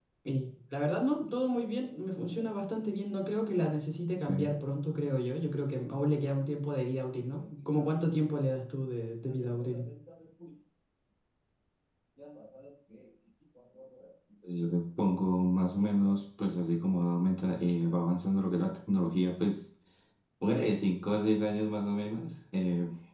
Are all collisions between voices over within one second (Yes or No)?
Yes